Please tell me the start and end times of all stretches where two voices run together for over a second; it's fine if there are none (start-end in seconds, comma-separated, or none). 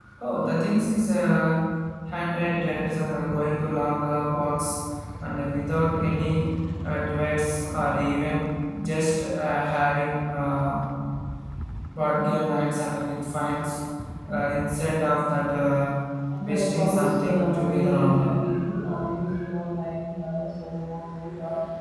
16.4-18.4